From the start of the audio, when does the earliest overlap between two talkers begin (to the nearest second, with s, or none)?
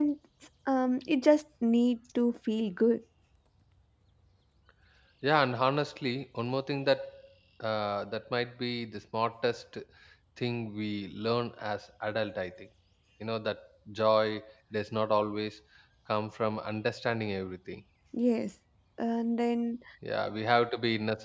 none